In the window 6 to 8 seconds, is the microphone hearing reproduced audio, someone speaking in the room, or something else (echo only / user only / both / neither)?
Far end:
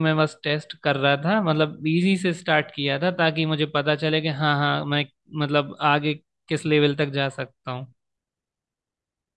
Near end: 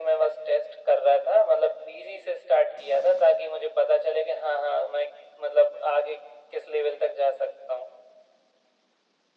echo only